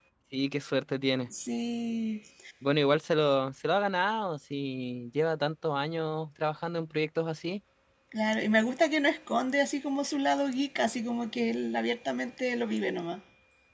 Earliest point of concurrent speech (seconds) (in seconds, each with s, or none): none